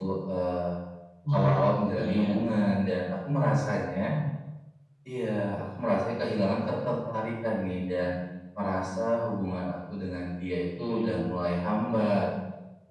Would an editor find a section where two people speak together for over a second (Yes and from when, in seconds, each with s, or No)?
Yes, from 1.3 s